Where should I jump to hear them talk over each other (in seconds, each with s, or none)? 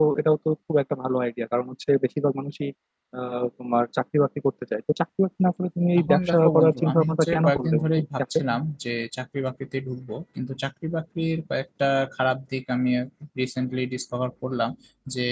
6.0 s